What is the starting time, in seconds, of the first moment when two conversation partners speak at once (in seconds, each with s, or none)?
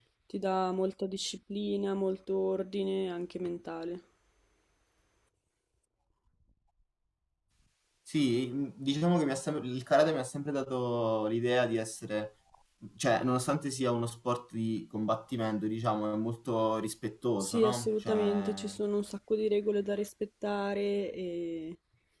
17.4 s